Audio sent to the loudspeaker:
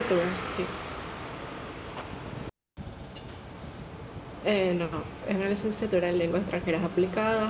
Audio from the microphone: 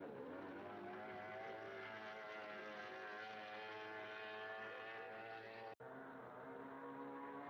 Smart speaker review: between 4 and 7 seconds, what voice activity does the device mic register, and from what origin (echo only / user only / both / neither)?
neither